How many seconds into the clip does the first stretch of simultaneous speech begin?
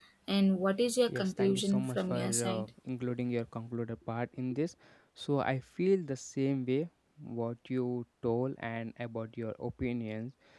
1.1 s

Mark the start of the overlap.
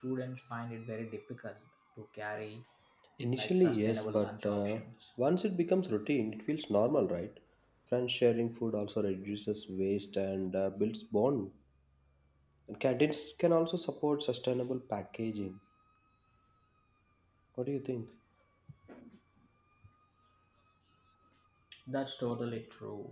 3.3 s

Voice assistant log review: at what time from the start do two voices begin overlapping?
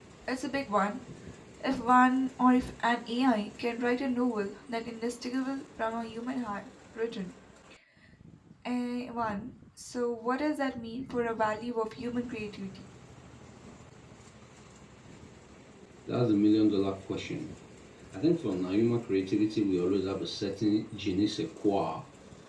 none

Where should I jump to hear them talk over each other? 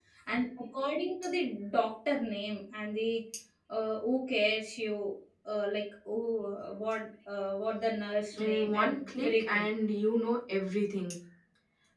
8.4 s

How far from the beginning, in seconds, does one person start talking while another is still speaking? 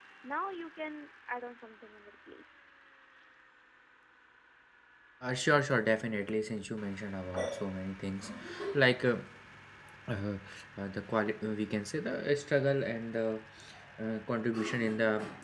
none

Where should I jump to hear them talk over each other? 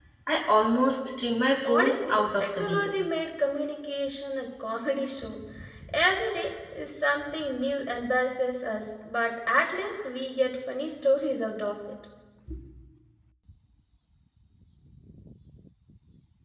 1.6 s

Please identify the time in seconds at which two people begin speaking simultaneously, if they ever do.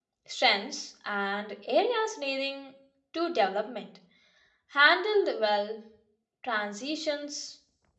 none

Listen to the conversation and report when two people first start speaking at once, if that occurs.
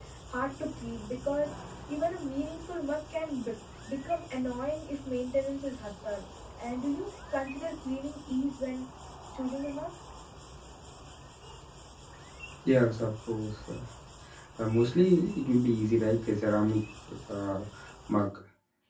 none

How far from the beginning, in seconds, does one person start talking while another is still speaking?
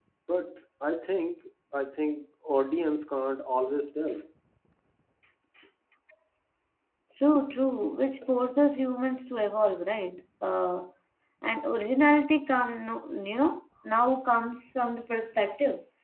none

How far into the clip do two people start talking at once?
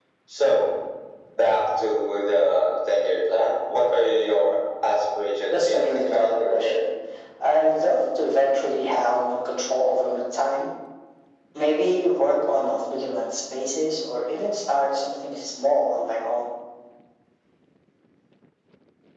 5.5 s

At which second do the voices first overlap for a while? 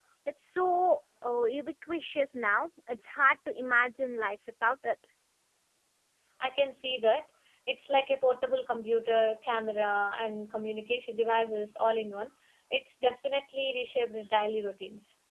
none

